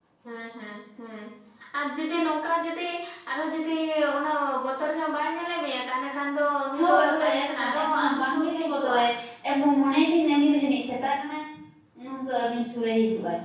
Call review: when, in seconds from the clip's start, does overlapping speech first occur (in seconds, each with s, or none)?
6.7 s